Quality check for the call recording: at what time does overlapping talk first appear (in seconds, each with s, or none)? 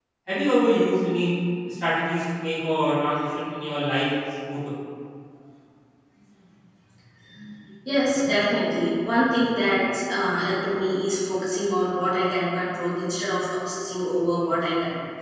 none